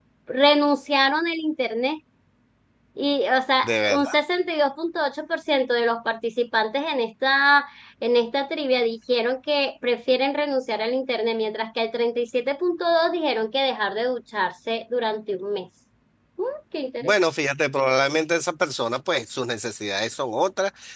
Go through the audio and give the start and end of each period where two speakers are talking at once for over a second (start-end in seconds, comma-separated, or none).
none